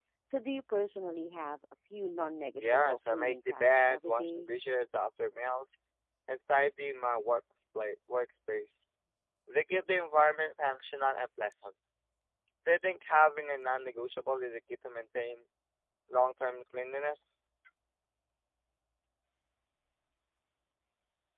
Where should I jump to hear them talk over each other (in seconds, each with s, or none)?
2.6 s